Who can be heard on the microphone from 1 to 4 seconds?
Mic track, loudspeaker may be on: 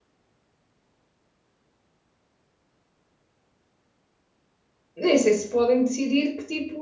neither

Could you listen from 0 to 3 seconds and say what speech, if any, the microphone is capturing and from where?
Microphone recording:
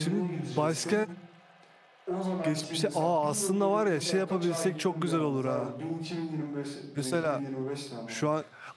both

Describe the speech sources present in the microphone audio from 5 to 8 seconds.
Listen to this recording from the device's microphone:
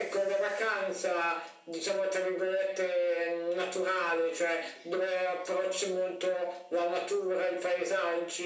echo only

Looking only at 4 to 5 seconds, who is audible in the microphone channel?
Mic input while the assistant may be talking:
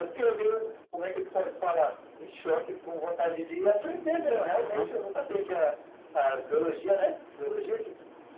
both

